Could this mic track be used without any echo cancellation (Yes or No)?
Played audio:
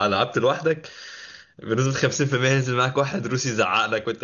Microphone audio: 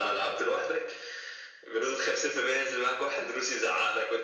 No